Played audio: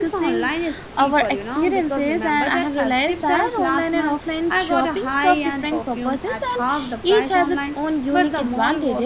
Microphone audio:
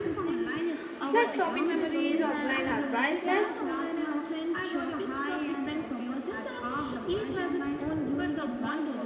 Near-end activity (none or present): present